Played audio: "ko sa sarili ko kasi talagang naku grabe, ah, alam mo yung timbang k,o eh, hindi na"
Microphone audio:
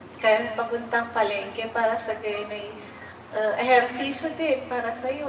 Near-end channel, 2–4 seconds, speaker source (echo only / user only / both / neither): user only